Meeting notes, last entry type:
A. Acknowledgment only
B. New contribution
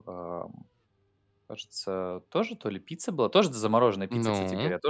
A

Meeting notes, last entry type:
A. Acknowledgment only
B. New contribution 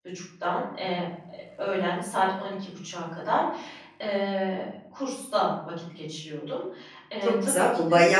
B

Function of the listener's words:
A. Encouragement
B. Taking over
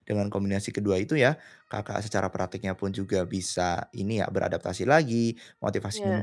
A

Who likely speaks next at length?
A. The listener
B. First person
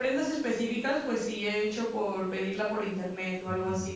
A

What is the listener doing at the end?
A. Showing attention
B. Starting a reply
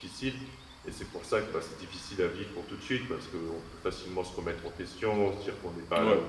A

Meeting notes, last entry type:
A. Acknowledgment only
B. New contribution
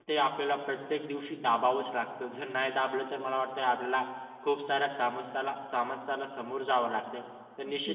A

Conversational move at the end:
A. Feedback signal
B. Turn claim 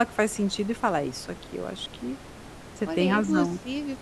B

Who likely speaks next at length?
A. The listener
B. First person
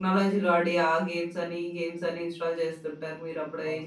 A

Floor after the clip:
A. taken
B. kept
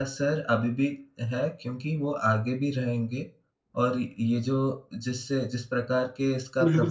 A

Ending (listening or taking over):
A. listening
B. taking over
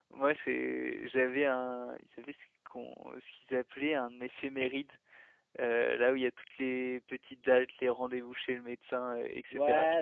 B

